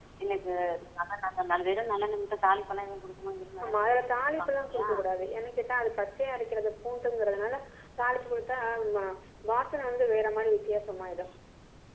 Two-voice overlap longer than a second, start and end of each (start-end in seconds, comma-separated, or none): 3.6-4.9